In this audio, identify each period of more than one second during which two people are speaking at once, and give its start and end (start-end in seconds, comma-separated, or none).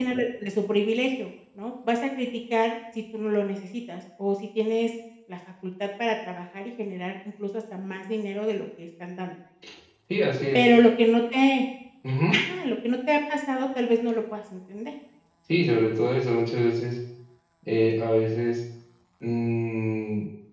none